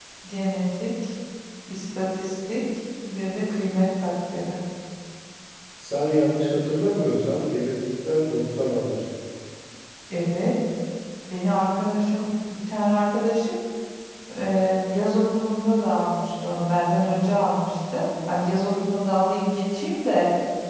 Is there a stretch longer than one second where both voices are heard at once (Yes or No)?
No